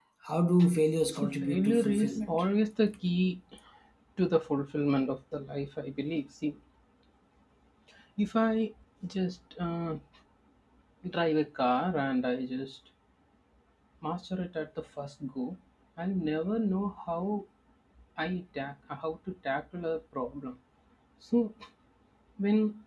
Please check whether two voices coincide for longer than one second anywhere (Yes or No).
Yes